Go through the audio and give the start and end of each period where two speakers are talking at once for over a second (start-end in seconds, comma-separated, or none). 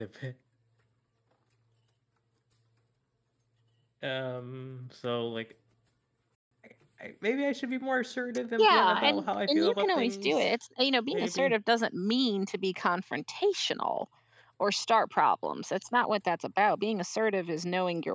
8.6-10.5